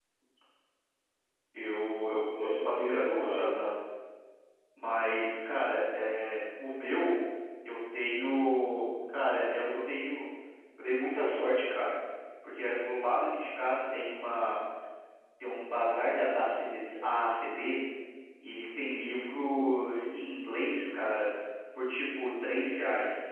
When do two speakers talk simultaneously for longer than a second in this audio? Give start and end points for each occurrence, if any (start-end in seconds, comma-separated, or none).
2.1-3.6